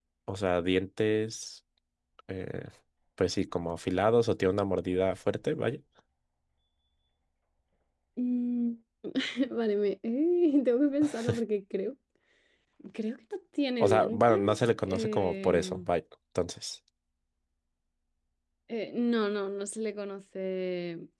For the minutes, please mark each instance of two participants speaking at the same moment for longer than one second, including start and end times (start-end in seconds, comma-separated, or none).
13.8-15.9